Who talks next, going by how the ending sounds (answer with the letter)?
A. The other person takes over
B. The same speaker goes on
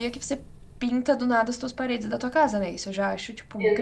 A